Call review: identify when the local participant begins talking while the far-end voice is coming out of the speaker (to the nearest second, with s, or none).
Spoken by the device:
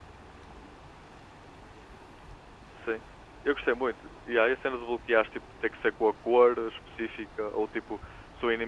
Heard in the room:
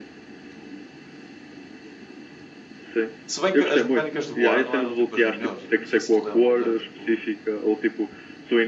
3 s